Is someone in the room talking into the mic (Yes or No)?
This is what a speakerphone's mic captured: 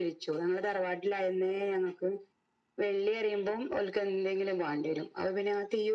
No